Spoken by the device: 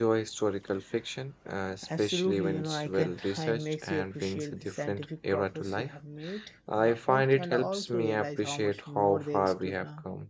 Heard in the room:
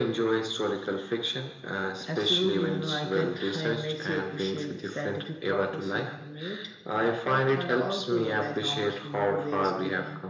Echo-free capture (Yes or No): No